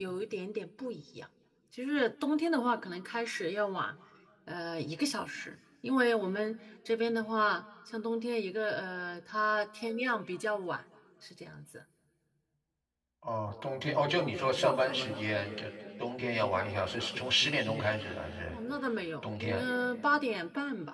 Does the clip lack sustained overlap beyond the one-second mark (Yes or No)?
Yes